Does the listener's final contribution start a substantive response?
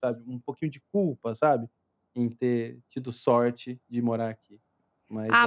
Yes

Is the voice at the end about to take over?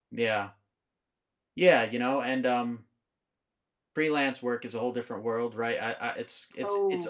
No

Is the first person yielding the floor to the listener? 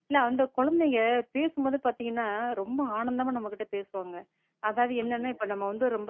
No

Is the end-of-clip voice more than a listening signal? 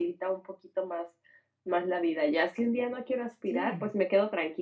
No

